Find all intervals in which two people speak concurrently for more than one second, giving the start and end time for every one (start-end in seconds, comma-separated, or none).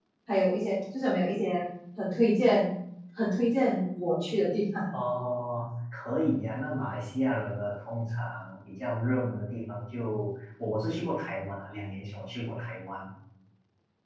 none